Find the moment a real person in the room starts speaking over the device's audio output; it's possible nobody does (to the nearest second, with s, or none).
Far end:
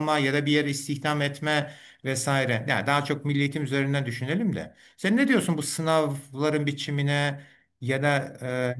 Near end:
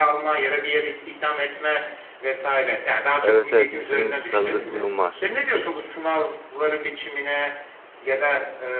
3 s